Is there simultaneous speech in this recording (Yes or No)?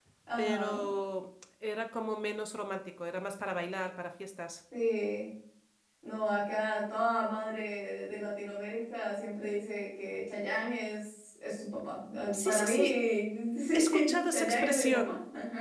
Yes